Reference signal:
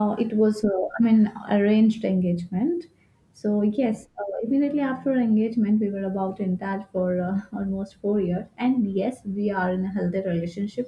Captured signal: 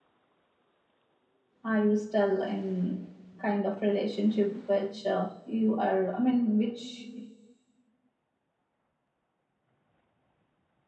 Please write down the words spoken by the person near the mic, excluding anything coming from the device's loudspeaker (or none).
Are you still in kind of relationship which uh, you are, I mean, which